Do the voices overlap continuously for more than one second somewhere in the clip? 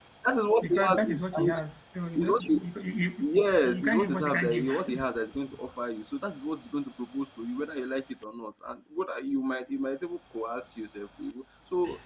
Yes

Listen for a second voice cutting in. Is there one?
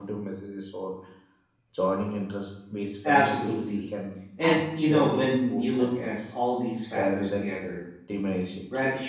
Yes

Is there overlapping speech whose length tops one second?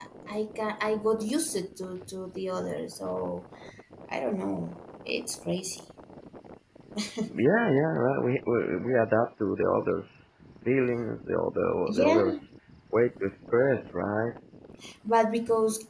No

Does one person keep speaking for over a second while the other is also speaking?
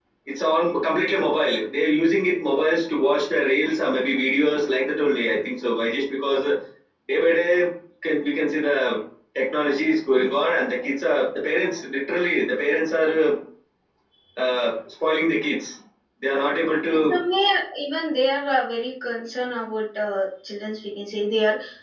No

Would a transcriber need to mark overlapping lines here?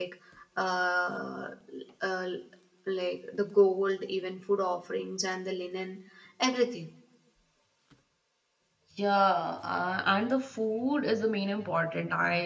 No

